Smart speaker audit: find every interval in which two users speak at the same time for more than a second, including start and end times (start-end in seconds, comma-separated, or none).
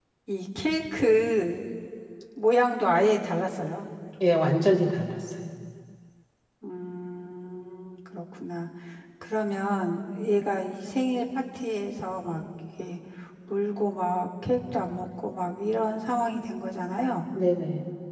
none